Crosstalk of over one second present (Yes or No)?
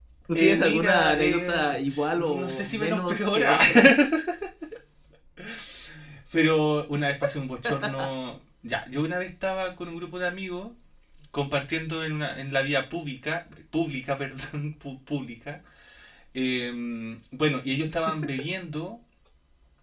Yes